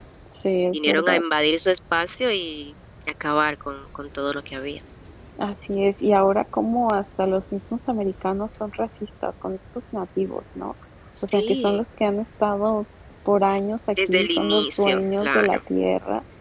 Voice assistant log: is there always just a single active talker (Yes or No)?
No